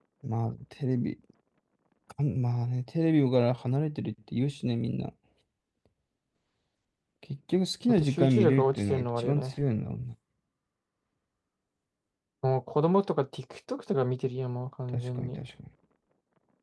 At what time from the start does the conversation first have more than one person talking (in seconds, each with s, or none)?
7.9 s